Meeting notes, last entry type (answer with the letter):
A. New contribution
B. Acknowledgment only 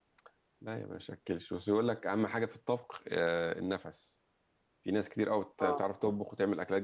B